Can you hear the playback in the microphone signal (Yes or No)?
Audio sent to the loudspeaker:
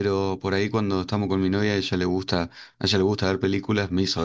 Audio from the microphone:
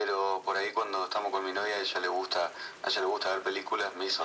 Yes